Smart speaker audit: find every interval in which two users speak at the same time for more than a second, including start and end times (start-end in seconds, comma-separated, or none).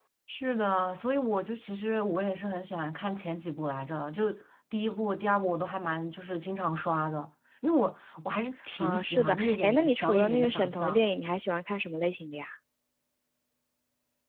8.8-11.1